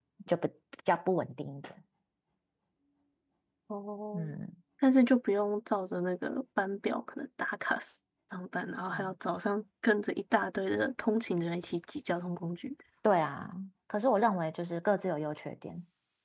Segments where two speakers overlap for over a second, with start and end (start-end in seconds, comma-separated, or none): none